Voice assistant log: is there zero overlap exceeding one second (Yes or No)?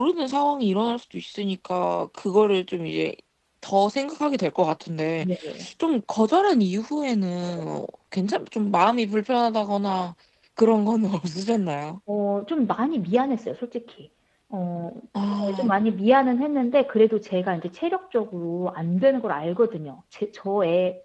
Yes